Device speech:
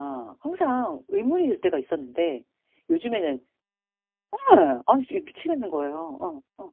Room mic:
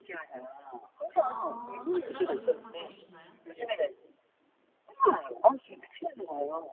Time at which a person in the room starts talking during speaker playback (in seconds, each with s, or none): 1.1 s